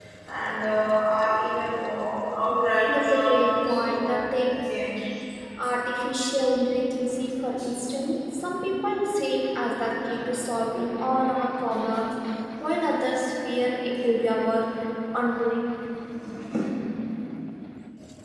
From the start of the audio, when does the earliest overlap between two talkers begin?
3 s

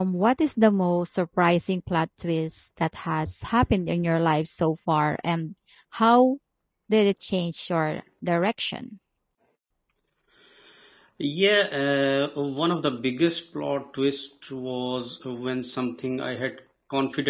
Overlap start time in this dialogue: none

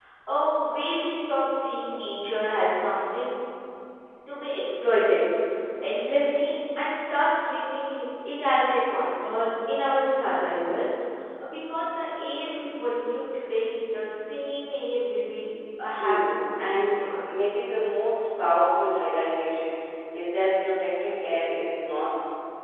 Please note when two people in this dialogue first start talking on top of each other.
16 s

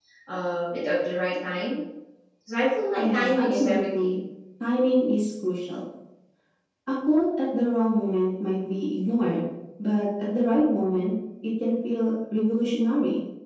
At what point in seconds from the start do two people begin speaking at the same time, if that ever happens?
3 s

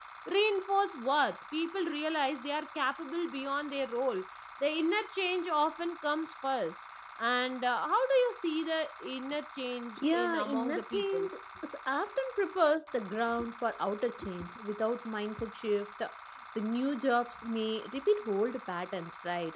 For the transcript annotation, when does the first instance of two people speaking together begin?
10 s

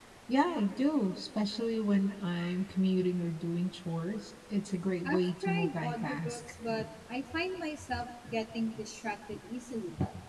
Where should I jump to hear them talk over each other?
5 s

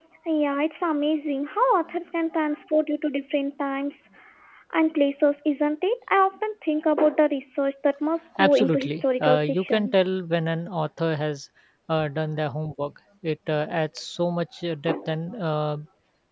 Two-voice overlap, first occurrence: 8 s

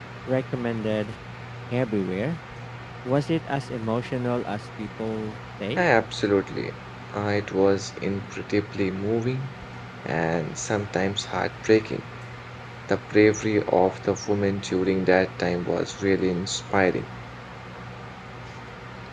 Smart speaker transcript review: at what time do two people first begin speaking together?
none

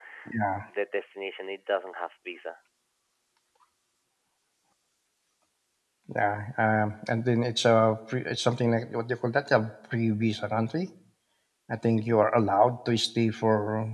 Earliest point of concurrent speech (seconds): none

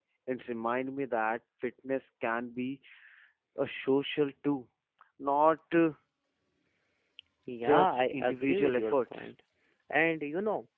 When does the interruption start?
8 s

